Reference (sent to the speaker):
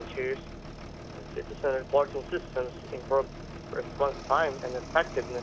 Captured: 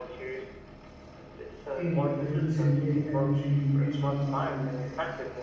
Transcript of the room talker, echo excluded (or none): aimed at reducing wave energy reaching populated areas.